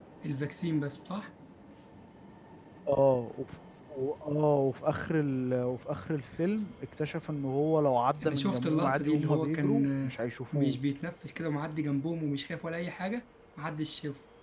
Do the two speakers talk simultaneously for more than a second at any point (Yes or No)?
Yes